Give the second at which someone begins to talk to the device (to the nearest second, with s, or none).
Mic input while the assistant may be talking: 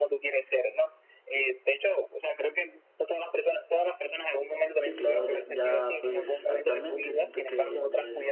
5 s